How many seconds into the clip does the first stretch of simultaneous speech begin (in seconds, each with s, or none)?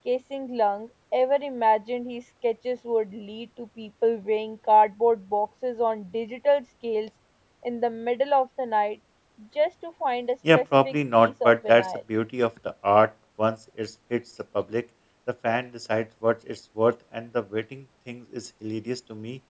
10.4 s